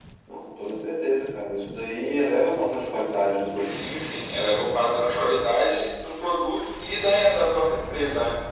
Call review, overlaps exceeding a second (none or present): none